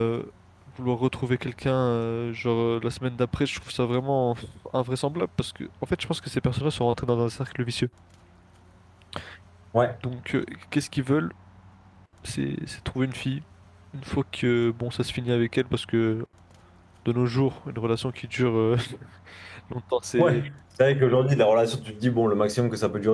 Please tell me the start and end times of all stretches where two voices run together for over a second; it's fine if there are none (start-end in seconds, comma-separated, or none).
none